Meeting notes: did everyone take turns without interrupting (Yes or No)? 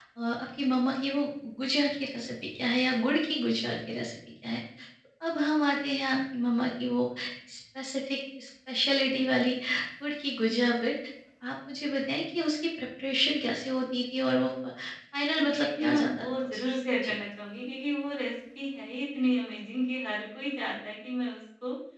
No